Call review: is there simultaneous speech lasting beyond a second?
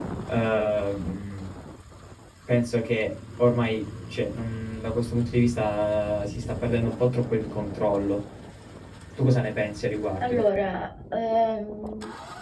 No

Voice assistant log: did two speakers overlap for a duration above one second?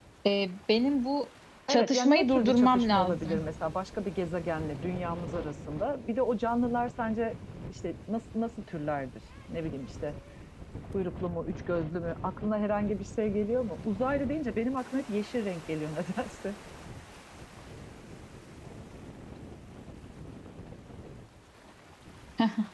Yes, from 1.7 s

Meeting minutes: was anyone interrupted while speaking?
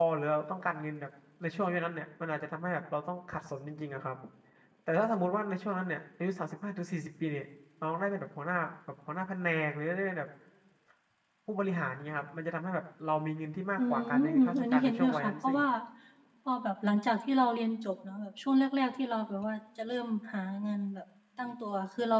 Yes, from 13.8 s

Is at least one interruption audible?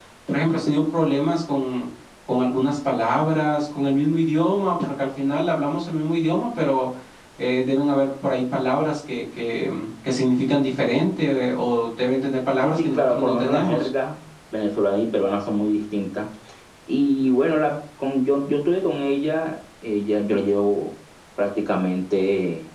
Yes, from 12.6 s

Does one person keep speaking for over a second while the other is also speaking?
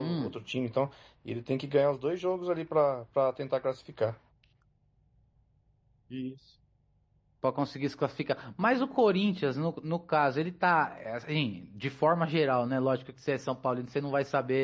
No

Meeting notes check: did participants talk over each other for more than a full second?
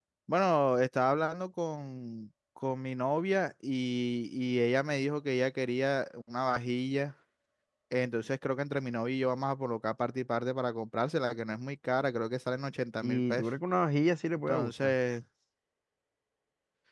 No

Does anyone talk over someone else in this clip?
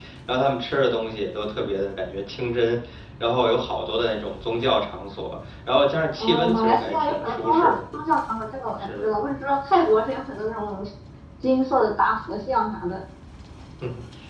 Yes, from 6.2 s

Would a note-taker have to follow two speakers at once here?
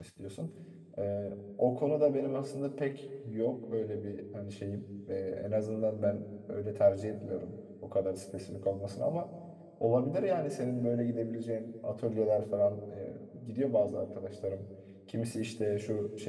No

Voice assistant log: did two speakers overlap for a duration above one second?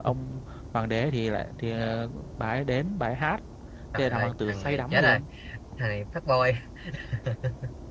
Yes, from 4.0 s

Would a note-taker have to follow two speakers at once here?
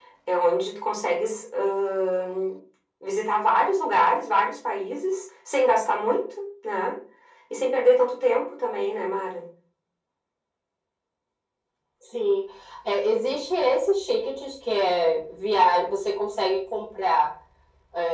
No

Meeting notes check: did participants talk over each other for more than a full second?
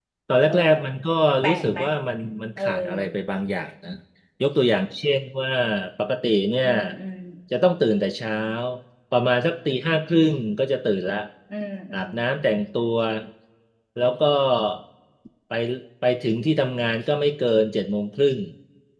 No

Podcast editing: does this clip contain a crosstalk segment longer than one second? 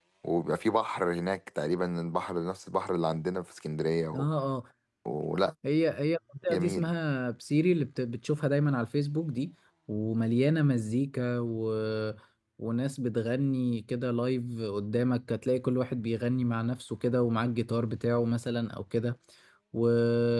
No

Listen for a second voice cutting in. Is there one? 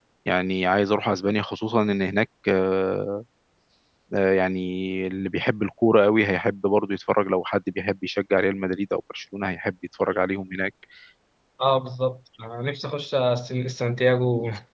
No

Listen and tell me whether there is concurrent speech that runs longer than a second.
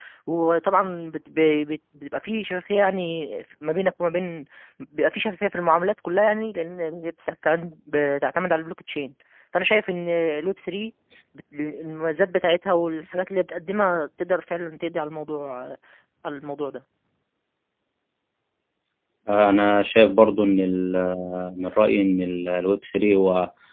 No

